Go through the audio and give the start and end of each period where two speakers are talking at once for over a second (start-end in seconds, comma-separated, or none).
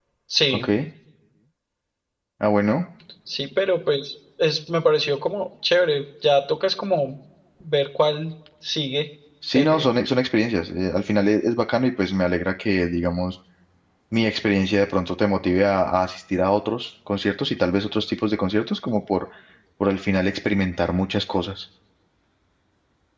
none